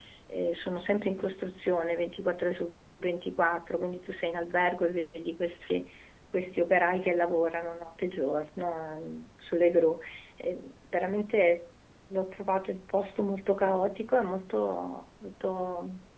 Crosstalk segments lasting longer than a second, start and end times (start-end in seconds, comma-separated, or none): none